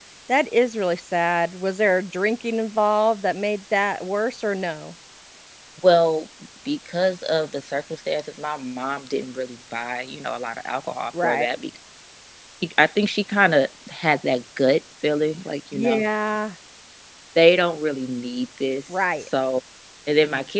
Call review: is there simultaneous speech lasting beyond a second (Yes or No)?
No